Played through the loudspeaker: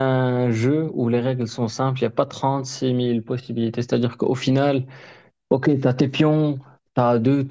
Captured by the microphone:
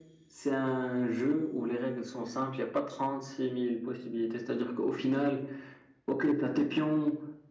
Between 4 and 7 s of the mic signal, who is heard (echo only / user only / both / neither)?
echo only